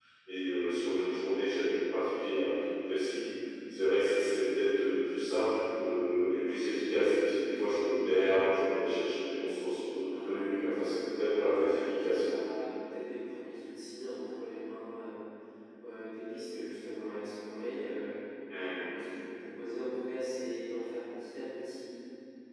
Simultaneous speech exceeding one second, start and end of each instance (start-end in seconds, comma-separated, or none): 10.1-12.4